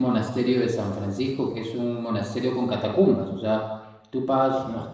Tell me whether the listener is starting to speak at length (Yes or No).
No